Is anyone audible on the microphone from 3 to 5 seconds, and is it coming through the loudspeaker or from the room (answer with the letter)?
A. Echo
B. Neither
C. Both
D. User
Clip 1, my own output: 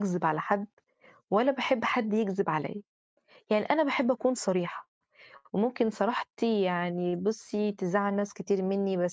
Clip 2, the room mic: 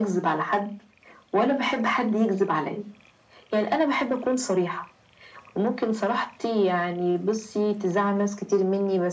A